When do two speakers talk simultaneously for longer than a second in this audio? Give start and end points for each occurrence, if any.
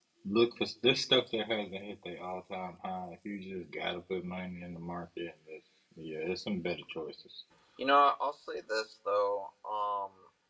none

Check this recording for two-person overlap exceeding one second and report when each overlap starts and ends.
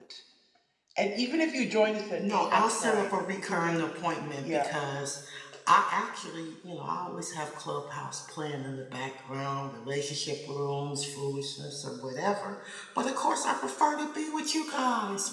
2.2-3.9

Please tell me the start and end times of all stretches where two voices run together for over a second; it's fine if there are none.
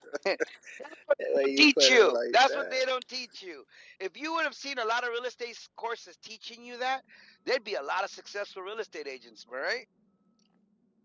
1.6-2.9

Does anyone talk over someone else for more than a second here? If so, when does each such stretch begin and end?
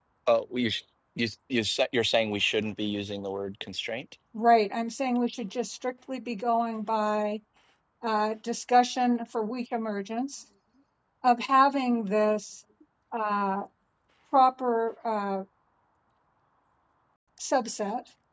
none

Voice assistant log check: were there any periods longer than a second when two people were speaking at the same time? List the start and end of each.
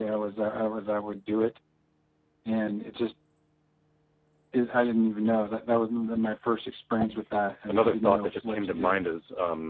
7.7-9.0

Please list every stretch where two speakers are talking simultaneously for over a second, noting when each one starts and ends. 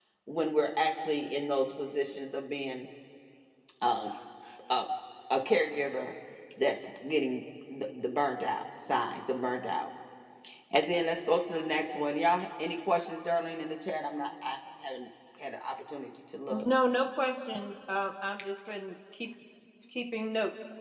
none

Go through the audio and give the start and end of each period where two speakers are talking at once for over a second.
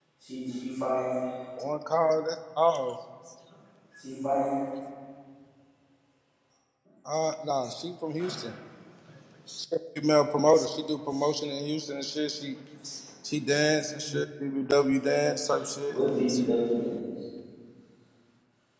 none

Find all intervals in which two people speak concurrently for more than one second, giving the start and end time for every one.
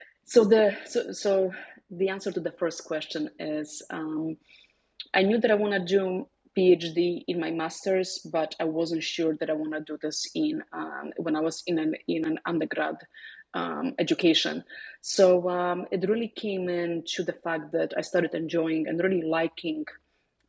none

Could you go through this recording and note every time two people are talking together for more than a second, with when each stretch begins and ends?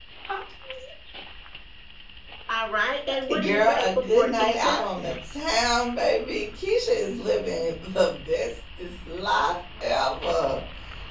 3.4-4.7

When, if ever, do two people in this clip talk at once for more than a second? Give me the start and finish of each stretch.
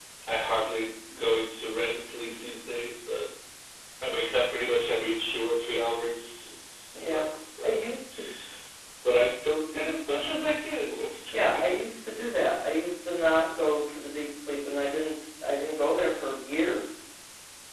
none

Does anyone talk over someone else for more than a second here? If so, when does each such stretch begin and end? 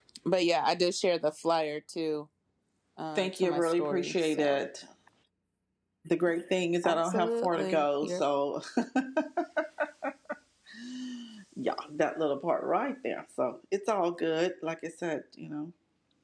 3.2-4.7, 6.8-8.2

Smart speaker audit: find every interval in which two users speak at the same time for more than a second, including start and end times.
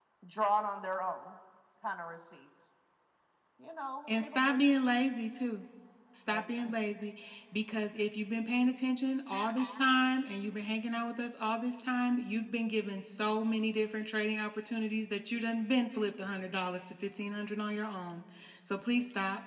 none

